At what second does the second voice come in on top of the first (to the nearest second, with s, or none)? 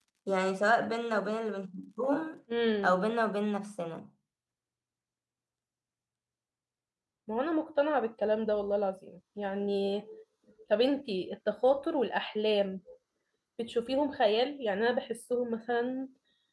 none